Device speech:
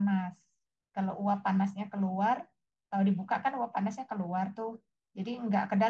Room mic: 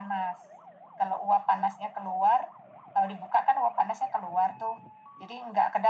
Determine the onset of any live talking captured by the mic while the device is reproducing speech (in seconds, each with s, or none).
none